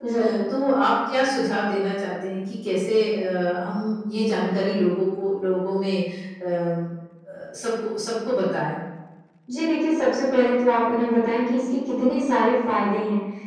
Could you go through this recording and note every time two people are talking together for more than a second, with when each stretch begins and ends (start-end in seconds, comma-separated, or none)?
none